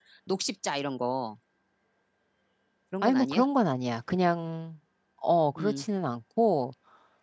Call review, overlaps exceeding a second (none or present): none